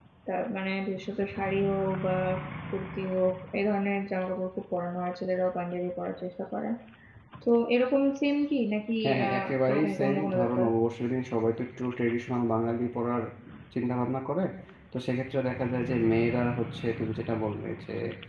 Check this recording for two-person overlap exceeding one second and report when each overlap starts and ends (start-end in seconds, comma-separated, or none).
9.0-10.6